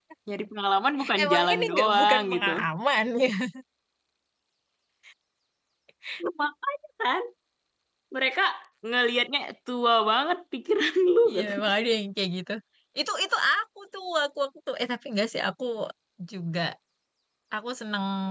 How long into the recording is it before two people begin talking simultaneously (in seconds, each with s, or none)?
1.2 s